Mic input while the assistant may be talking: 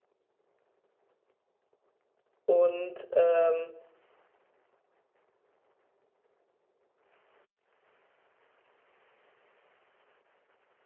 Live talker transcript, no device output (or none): Und ähm,